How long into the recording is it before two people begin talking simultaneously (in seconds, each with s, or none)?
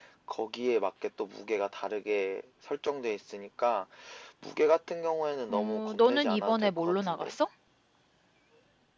5.5 s